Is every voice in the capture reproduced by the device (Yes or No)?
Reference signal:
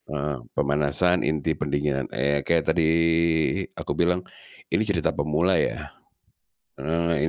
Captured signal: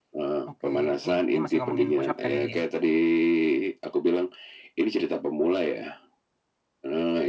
No